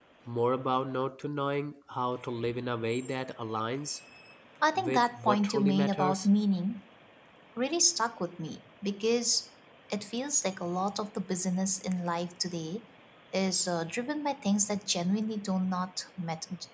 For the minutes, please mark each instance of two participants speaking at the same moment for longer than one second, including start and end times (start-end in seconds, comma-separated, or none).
4.8-6.3